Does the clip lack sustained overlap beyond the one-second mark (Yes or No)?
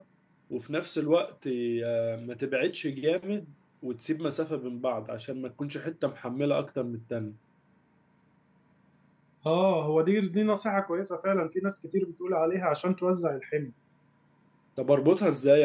Yes